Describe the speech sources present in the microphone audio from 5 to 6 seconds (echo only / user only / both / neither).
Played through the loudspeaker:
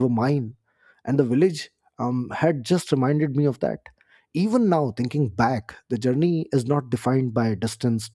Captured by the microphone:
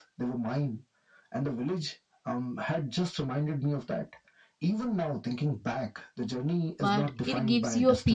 echo only